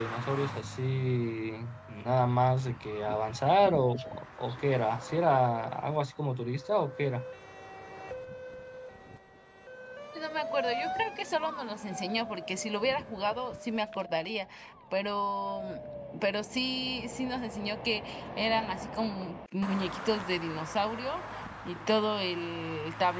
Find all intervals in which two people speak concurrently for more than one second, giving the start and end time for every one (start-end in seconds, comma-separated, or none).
none